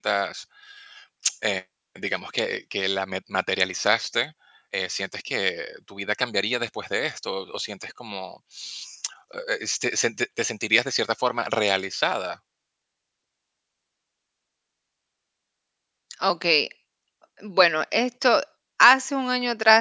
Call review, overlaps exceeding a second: none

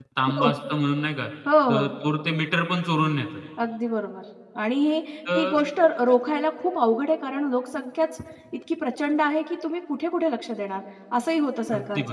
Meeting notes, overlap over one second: none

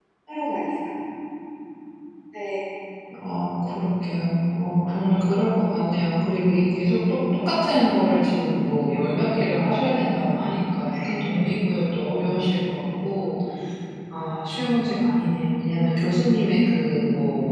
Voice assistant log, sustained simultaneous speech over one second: none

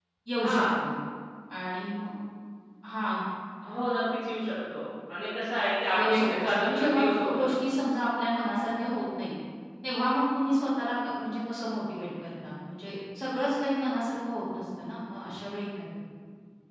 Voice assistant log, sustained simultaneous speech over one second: present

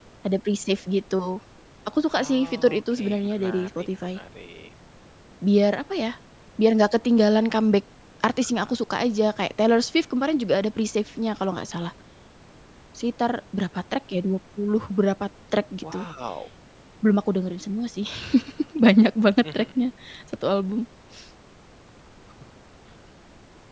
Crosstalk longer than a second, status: present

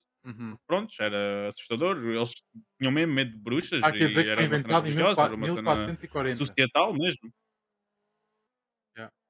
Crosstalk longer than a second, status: present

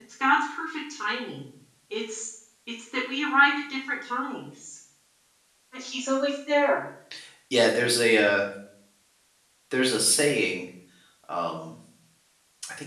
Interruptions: none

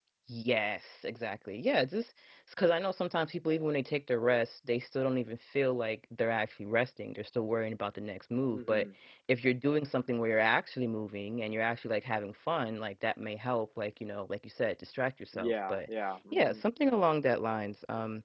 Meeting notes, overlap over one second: none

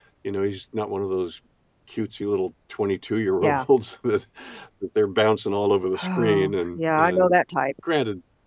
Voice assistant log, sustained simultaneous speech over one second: present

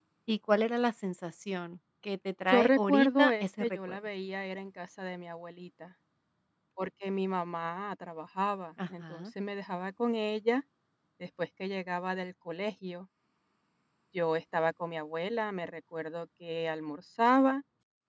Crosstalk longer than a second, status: present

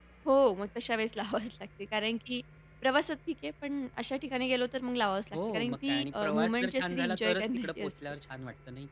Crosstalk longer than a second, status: present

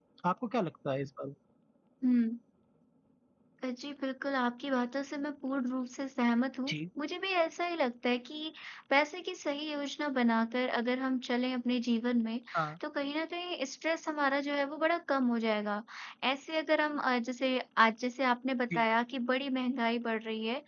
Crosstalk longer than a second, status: none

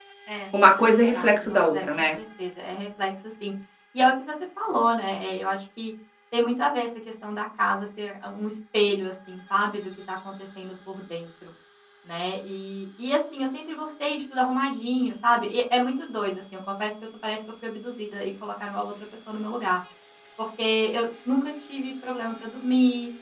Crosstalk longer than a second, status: present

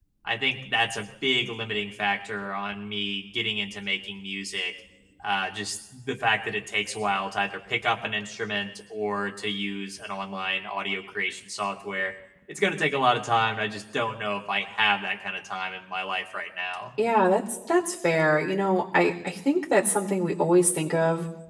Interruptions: none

